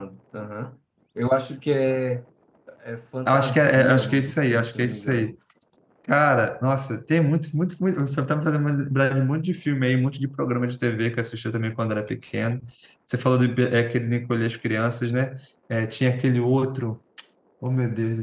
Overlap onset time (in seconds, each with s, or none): 3.2 s